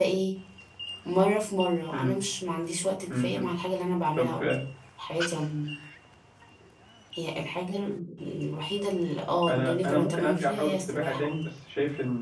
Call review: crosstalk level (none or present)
present